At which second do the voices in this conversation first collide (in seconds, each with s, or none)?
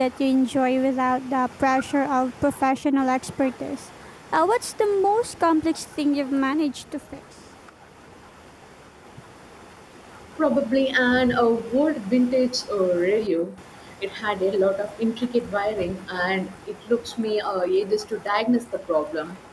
none